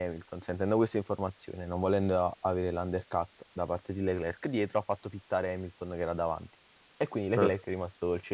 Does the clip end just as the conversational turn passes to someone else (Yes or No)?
No